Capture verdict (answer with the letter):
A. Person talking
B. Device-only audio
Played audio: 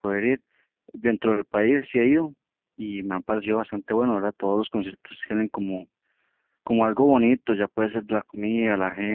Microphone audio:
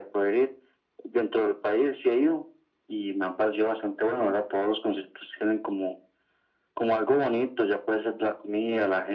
B